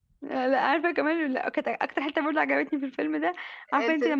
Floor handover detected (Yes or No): No